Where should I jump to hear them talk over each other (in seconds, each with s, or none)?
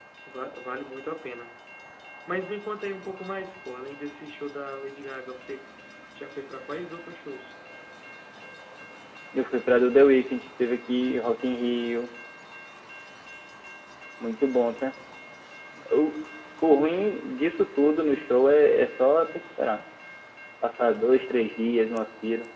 none